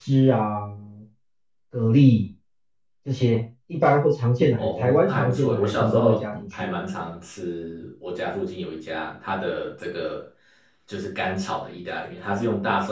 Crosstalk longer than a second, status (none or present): present